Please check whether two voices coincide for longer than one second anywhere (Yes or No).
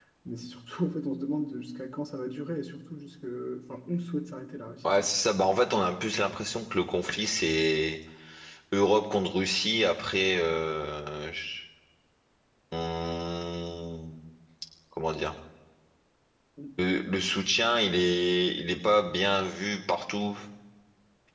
No